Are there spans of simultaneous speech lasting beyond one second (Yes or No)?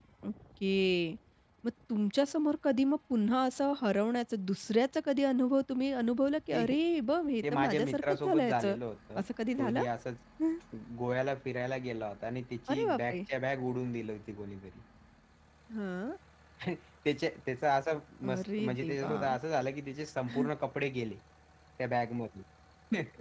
Yes